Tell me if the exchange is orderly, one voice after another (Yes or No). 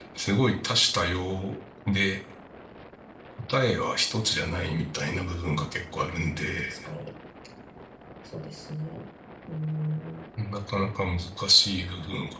Yes